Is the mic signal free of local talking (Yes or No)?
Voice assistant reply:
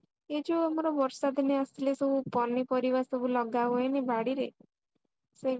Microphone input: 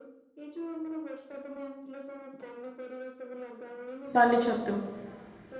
No